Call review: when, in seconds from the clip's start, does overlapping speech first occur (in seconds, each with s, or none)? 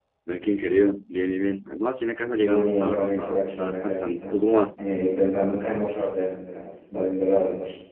2.4 s